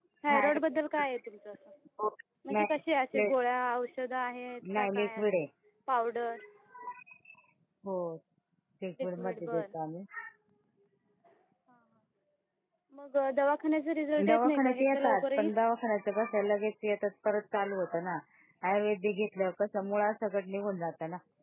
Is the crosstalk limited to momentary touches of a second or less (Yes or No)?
No